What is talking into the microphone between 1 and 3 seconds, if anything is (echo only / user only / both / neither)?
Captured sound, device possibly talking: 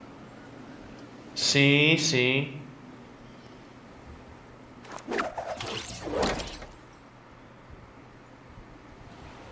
user only